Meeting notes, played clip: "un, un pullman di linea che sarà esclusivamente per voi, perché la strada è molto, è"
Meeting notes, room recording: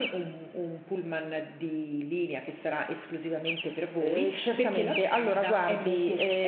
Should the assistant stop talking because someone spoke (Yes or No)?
Yes